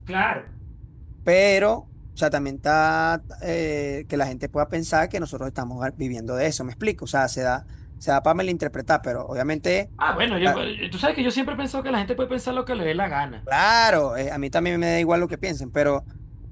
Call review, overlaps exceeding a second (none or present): none